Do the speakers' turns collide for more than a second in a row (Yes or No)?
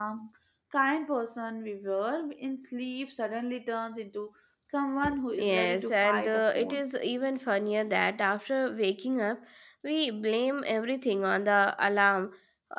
Yes